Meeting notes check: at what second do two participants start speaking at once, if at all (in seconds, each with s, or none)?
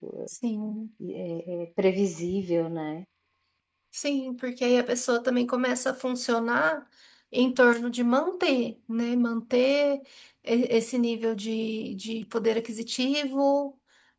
none